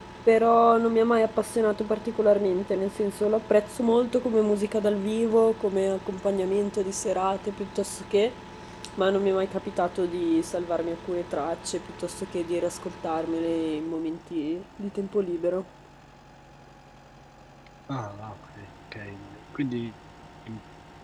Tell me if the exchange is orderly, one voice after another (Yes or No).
Yes